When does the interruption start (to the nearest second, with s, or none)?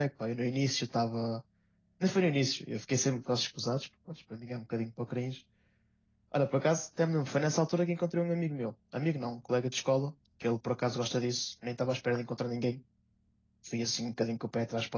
none